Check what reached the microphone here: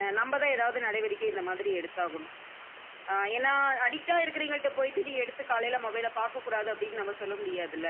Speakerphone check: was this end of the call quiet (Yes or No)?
Yes